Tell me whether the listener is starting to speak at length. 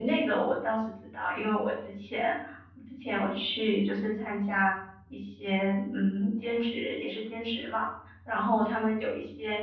No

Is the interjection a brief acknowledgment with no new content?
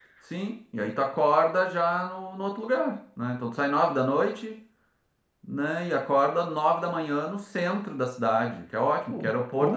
Yes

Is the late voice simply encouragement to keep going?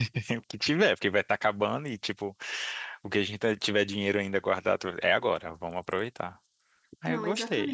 No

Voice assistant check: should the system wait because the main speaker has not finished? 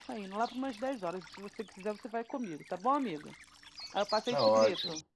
No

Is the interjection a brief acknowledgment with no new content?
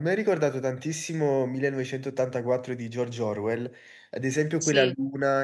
Yes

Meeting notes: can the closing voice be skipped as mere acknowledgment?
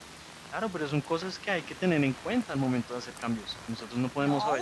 No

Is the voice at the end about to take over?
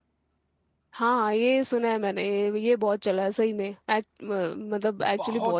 Yes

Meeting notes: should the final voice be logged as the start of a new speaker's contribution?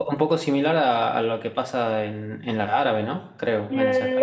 Yes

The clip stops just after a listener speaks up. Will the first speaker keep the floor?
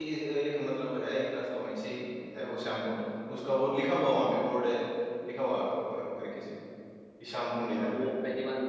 No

